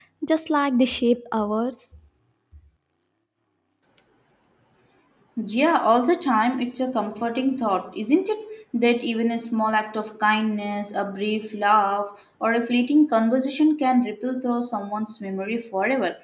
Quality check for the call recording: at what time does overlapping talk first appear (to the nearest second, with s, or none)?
none